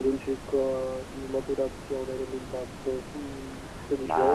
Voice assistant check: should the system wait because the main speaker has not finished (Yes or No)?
No